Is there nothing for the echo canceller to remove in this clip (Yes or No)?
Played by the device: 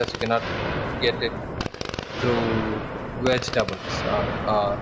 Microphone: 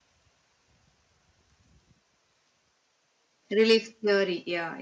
Yes